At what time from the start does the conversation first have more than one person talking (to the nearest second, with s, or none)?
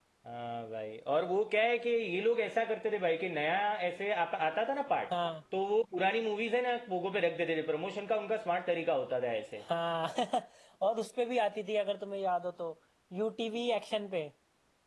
none